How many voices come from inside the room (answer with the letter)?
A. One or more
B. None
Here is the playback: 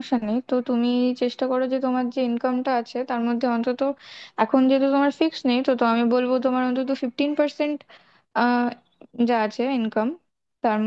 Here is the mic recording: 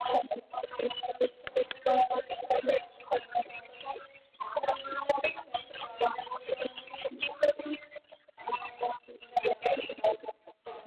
B